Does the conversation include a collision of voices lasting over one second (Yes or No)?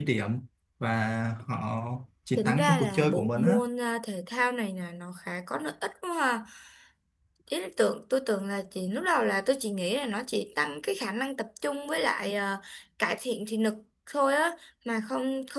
Yes